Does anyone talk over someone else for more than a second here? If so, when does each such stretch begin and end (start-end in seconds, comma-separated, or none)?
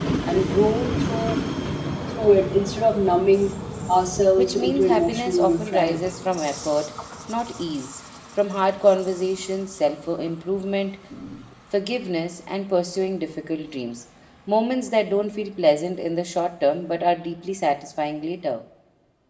4.4-6.2